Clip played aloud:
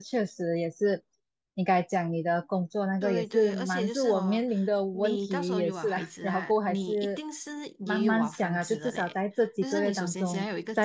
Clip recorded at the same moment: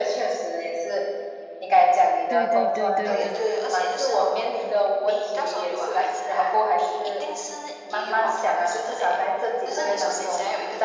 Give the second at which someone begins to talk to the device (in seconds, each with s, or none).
2.2 s